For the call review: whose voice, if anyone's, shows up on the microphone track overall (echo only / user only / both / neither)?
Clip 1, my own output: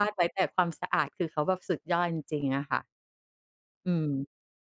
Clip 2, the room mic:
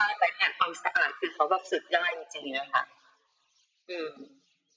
echo only